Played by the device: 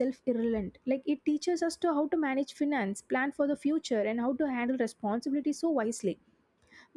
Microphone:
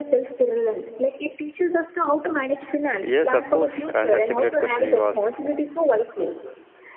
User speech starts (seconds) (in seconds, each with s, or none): 3.0 s